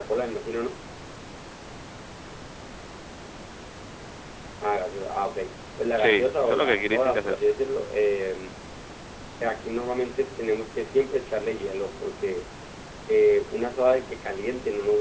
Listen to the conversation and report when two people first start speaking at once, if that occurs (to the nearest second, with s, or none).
6 s